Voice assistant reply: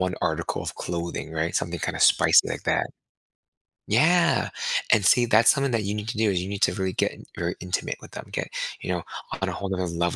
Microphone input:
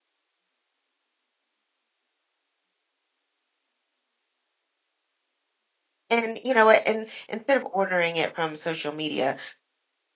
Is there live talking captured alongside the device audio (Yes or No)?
Yes